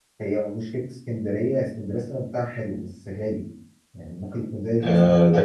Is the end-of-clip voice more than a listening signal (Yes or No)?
Yes